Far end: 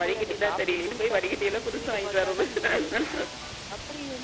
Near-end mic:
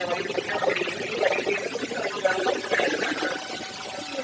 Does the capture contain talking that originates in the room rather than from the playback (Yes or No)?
No